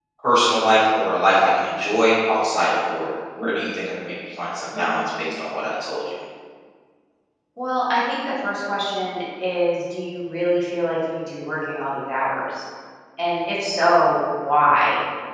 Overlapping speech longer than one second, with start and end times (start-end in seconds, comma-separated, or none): none